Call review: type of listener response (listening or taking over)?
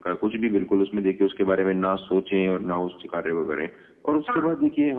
listening